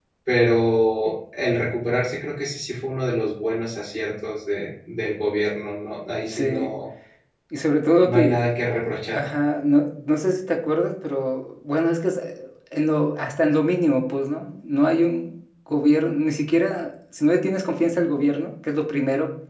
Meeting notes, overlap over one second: none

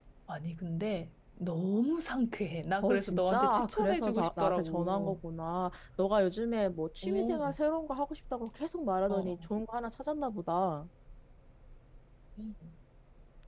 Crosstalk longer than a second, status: present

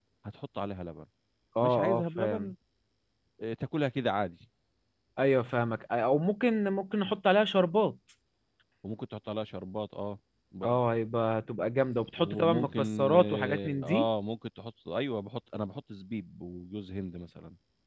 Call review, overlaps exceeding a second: present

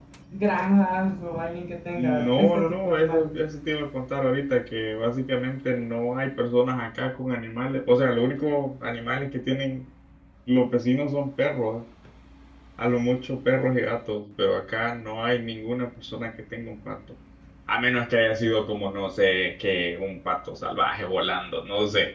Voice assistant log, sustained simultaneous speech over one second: present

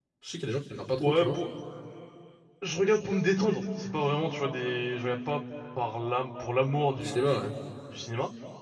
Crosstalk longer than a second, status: none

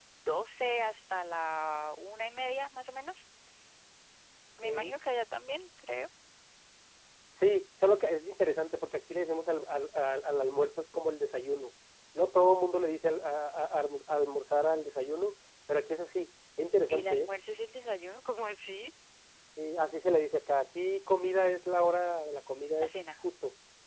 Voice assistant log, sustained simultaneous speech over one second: none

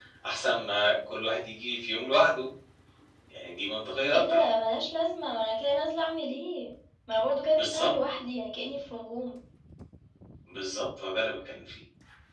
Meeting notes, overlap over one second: none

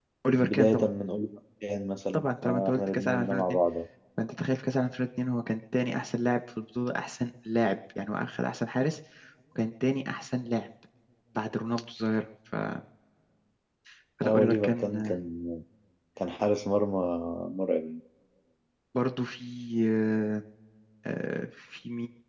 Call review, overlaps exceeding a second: present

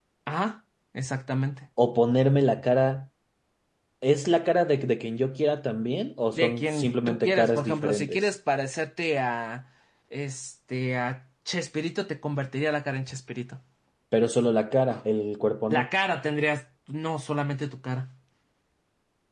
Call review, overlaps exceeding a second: present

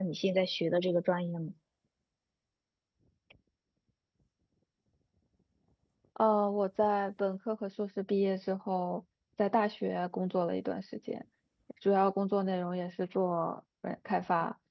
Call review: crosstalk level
none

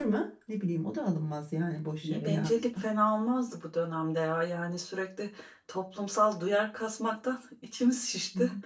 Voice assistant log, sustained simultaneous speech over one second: none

